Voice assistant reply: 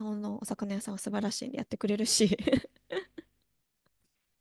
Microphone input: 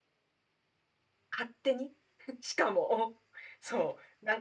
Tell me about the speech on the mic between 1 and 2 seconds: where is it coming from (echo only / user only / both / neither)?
user only